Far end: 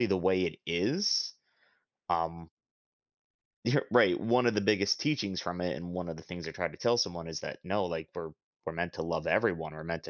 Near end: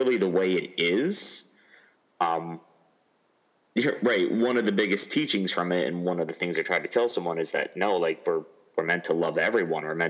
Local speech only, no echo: none

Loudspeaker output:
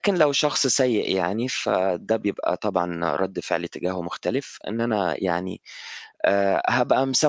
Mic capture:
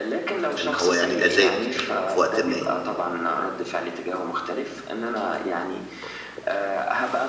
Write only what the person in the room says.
إن هو يعني أذاك في وقت ما،

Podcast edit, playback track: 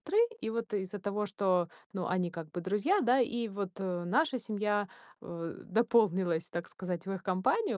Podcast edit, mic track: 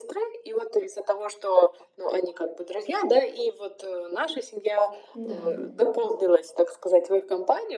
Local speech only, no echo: Да.

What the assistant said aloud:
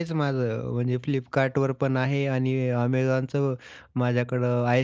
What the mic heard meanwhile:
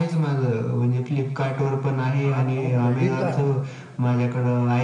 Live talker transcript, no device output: 8-9 क्रेडिट कार्ड.

